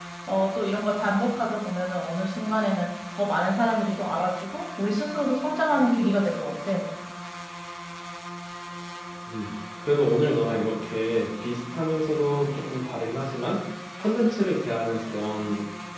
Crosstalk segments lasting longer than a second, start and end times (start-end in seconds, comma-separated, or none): none